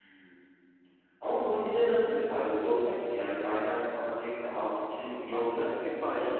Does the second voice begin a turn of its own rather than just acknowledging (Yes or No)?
Yes